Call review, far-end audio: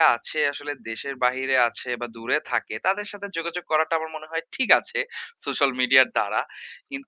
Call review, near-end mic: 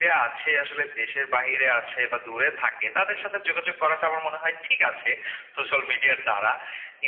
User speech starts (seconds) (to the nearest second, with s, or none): none